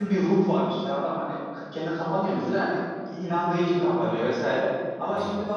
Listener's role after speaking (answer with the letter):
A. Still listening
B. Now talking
A